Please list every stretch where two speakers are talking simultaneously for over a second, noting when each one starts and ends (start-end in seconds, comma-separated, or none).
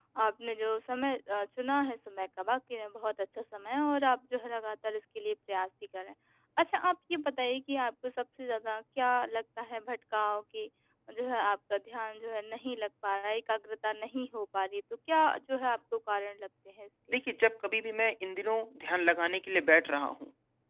none